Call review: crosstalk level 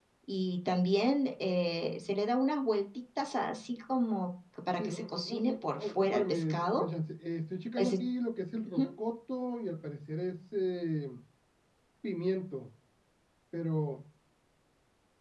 present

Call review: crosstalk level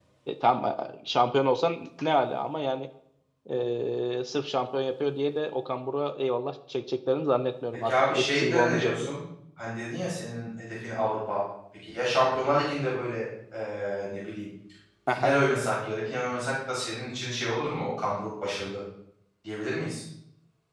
present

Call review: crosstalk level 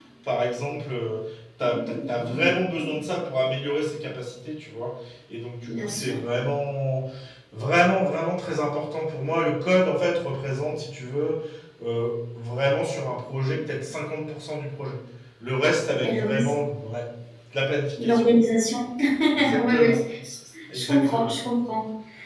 present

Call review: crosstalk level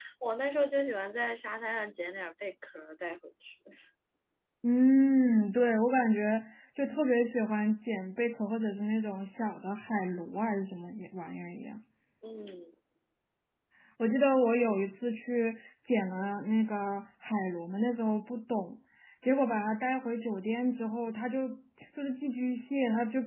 none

